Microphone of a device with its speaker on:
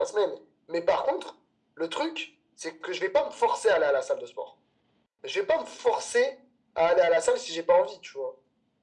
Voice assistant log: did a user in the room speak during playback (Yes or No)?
No